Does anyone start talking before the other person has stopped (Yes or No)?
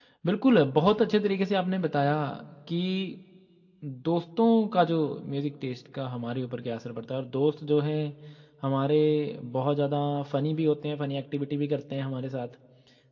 No